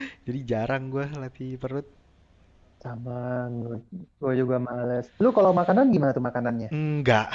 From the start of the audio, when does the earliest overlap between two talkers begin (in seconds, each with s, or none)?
none